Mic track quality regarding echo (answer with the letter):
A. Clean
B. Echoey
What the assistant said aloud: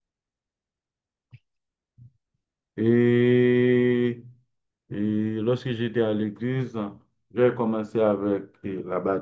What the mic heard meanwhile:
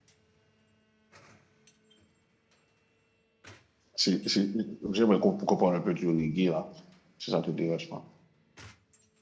A